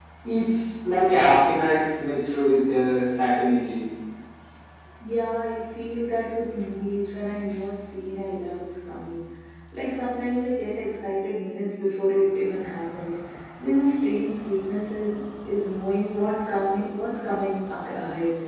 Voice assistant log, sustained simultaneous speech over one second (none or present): none